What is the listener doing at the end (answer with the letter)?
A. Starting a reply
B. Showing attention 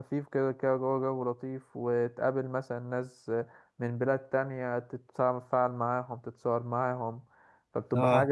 B